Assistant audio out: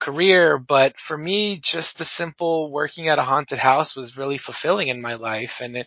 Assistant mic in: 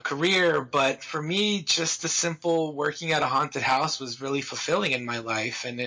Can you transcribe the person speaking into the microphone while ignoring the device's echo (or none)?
none